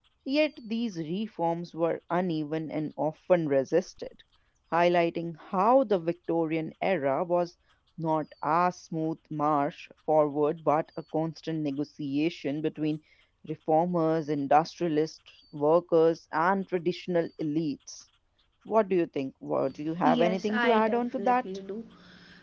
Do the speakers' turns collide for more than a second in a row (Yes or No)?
Yes